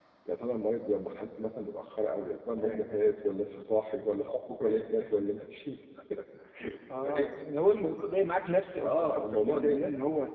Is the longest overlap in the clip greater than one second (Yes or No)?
Yes